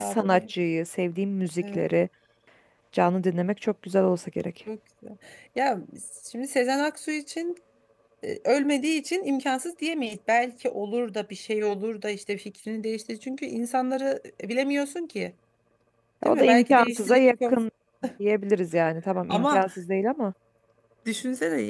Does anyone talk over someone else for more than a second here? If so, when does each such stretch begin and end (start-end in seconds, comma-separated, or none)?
16.2-17.6